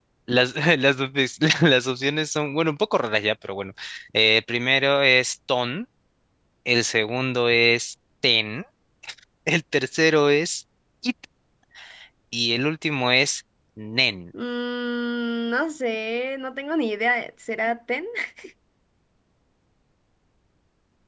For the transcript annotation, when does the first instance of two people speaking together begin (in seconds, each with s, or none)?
none